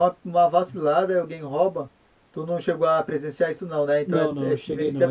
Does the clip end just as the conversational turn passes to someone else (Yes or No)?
Yes